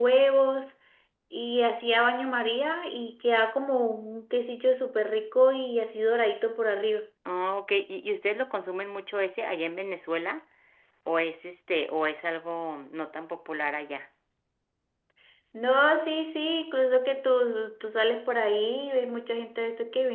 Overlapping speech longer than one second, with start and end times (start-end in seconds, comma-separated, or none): none